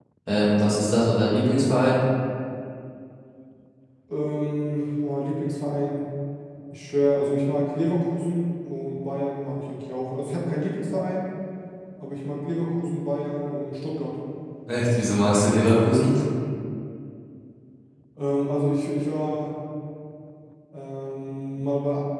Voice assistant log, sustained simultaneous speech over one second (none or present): none